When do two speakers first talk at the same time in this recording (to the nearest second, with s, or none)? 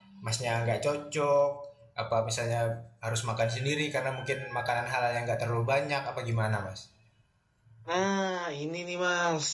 none